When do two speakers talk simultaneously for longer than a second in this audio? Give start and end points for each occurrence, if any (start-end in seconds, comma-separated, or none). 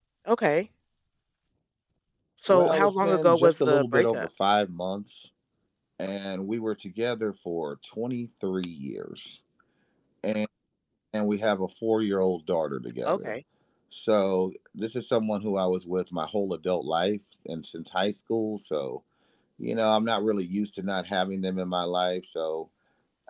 2.5-4.3